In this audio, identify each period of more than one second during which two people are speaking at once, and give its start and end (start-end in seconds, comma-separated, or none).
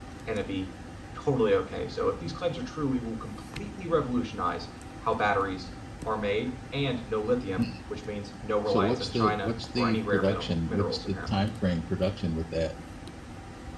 8.7-11.5